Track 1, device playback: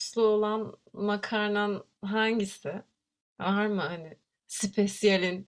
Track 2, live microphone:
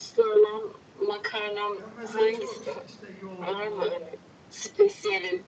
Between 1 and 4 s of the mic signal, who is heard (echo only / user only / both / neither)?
both